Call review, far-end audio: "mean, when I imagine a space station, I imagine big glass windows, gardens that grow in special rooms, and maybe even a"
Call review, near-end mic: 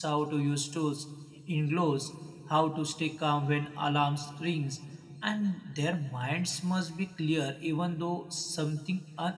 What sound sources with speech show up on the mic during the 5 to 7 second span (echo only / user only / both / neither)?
user only